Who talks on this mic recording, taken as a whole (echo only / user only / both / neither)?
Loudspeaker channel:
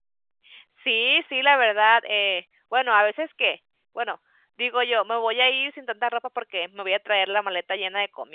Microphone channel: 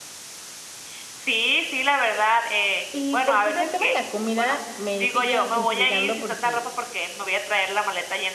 both